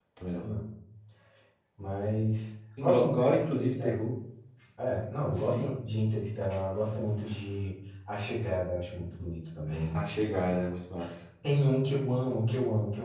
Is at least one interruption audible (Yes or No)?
Yes